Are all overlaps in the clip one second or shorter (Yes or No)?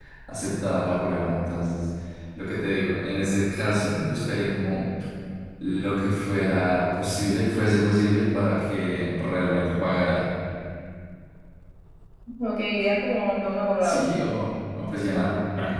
Yes